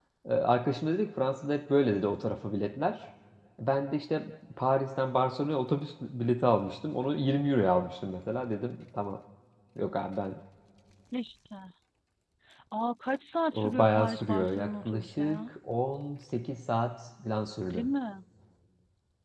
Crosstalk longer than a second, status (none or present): present